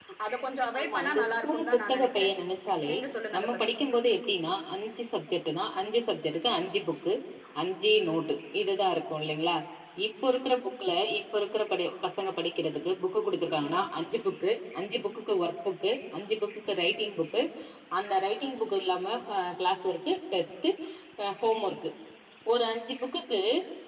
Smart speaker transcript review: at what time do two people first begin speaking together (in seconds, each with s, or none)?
0.8 s